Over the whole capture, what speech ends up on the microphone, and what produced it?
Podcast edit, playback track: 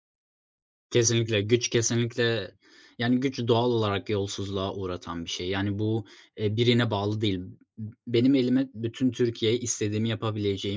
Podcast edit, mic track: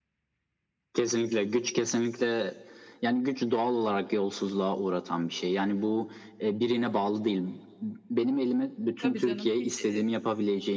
both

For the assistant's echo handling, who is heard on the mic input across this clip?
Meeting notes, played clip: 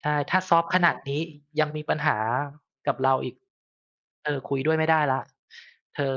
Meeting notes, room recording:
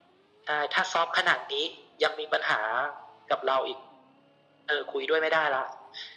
echo only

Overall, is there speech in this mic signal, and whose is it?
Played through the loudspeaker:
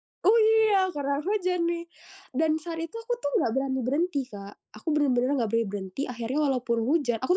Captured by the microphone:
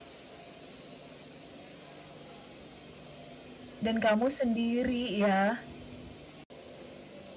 user only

